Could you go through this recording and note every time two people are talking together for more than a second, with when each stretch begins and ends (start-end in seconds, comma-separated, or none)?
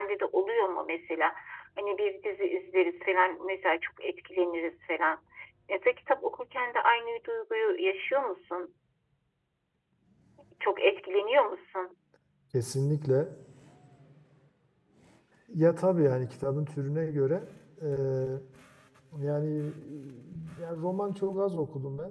none